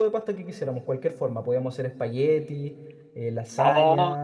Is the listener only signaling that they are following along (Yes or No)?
No